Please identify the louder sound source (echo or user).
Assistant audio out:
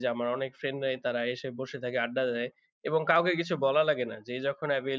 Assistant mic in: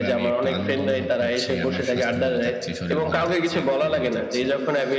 echo